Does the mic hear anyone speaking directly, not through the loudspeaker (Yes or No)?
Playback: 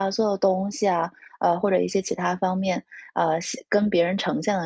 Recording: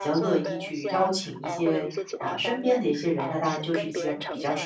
Yes